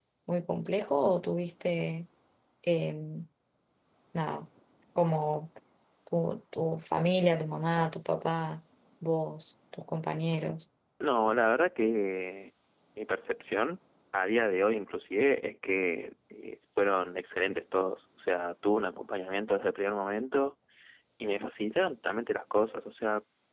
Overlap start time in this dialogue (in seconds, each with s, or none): none